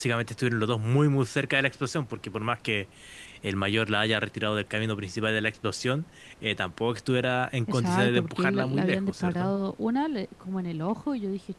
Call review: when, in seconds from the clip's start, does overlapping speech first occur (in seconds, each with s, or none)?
7.7 s